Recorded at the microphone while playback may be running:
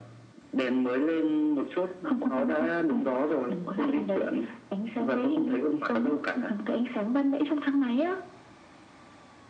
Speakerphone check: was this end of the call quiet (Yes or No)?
Yes